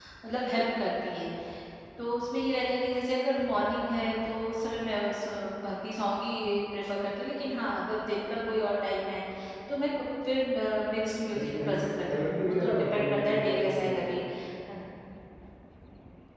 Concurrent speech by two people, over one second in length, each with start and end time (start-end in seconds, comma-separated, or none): 11.3-14.2